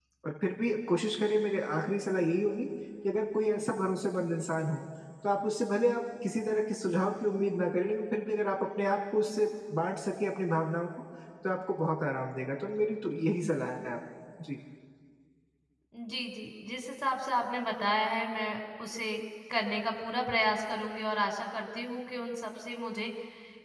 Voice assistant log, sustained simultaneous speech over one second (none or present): none